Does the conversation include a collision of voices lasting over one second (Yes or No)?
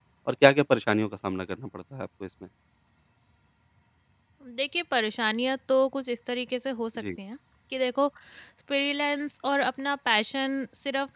No